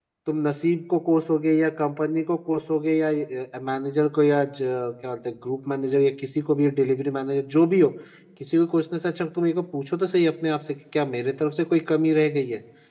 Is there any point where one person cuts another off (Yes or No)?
No